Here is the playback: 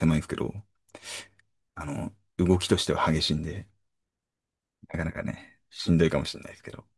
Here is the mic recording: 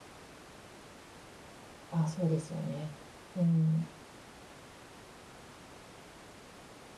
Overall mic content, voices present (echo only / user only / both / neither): user only